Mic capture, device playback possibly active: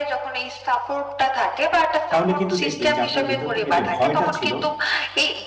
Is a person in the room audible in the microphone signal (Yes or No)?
Yes